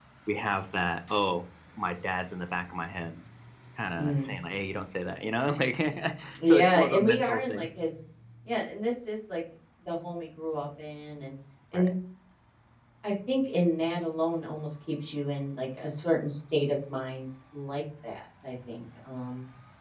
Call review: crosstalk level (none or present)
present